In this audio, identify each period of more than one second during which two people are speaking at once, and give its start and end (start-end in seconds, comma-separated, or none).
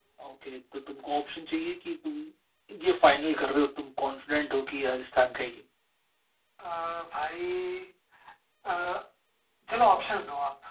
none